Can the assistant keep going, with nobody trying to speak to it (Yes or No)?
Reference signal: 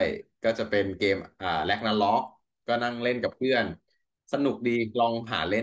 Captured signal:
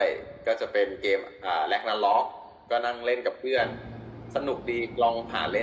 Yes